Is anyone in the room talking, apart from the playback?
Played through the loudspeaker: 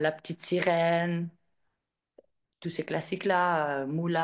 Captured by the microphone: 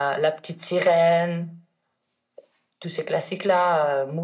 No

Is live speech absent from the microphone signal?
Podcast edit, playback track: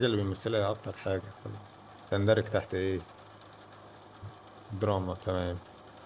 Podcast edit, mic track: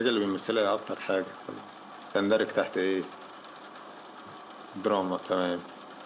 Yes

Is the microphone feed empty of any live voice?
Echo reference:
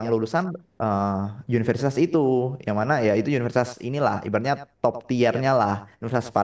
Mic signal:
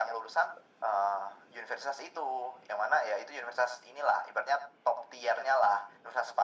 Yes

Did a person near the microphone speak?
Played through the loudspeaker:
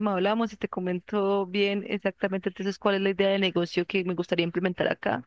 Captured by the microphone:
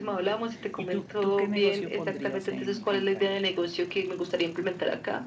Yes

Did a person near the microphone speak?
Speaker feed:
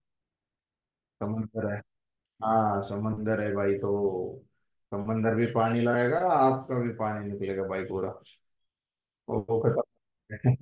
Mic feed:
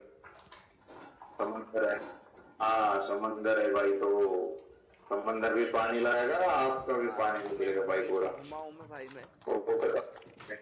Yes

